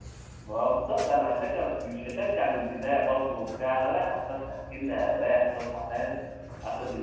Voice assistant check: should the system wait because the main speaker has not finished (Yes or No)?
Yes